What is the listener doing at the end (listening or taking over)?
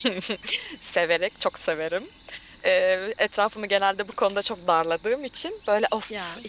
listening